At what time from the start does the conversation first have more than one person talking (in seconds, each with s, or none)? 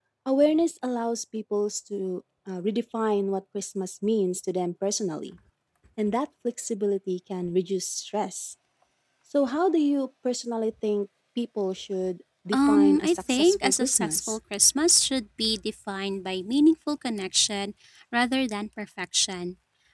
12.5 s